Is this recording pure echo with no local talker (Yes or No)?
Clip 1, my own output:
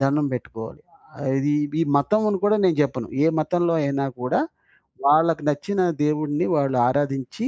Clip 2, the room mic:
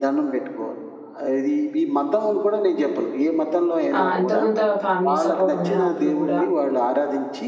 No